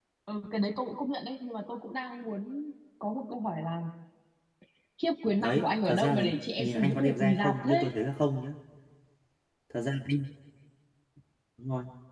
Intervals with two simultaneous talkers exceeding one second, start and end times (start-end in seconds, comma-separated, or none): 5.4-7.9